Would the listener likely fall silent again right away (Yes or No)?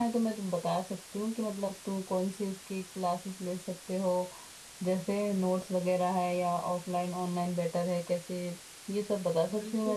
No